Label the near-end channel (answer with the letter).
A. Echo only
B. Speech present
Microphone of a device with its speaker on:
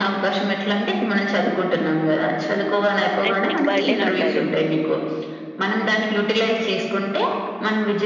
B